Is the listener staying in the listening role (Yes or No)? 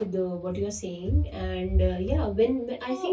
Yes